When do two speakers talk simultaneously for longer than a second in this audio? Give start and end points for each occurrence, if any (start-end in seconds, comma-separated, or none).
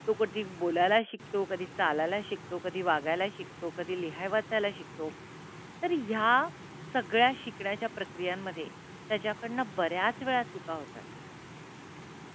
none